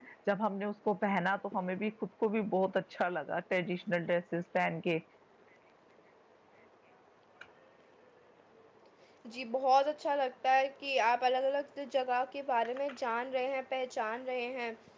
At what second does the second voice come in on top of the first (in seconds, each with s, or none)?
none